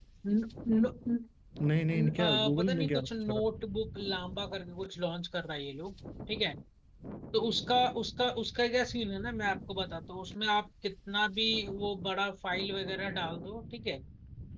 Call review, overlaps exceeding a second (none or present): present